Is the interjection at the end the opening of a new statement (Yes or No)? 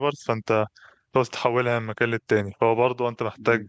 No